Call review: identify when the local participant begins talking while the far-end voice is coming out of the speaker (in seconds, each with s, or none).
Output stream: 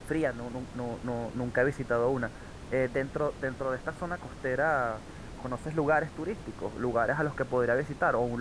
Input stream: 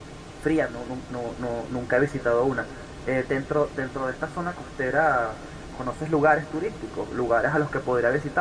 none